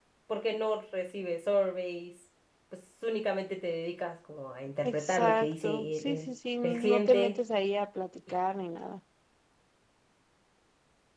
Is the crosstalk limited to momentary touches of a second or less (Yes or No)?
No